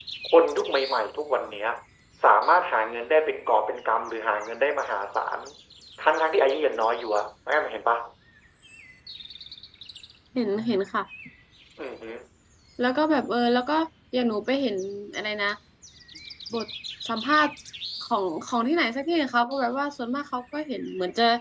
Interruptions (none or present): none